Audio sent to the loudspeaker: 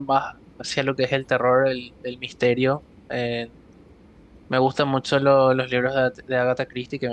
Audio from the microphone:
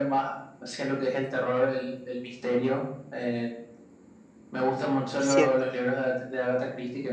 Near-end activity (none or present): present